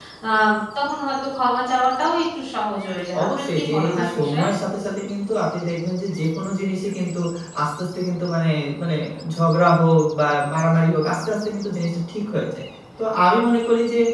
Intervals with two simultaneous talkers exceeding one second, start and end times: 3.2-4.4

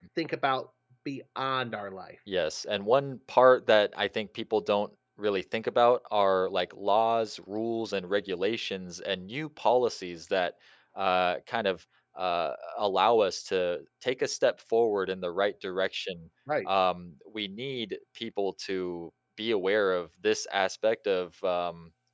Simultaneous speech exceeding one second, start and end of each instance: none

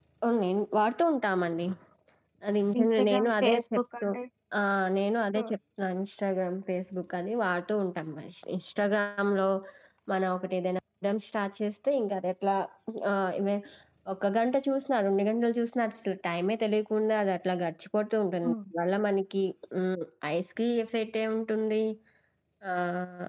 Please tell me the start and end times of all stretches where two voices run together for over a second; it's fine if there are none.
2.8-4.0

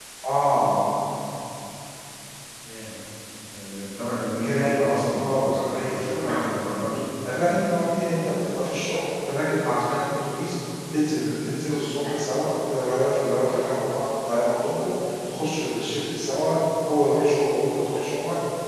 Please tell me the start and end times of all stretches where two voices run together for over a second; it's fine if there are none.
4.4-6.5

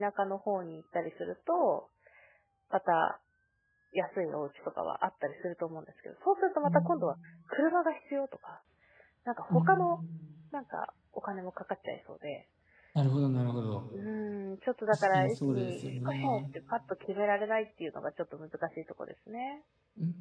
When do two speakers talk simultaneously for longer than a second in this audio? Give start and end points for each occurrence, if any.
14.9-16.4

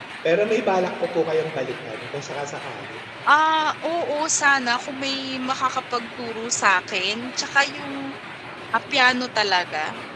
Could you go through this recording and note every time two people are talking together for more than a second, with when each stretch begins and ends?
none

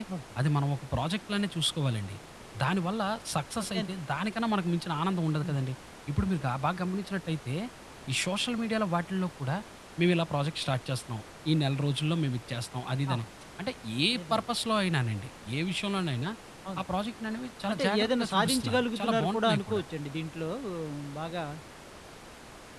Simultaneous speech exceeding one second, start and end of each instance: 17.7-19.8

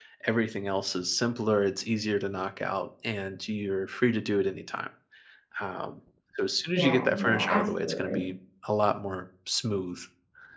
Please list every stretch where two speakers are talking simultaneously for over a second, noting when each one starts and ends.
6.7-8.2

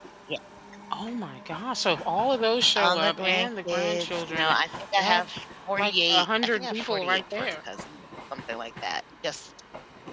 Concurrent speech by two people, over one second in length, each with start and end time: 2.8-4.6, 5.7-7.5

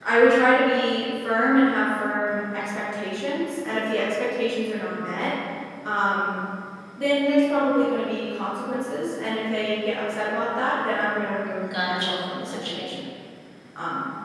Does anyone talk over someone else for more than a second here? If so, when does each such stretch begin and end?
11.7-12.9

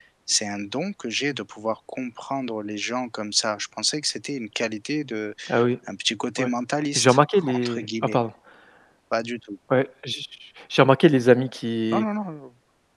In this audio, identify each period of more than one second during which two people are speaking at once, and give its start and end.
7.0-8.2

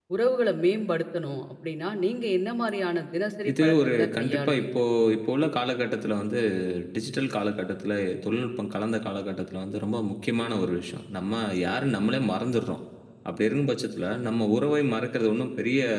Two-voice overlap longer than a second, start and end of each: 3.5-4.8

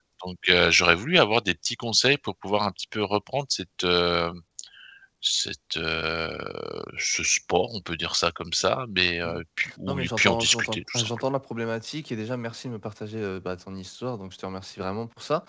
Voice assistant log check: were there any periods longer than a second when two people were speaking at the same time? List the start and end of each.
9.9-11.1

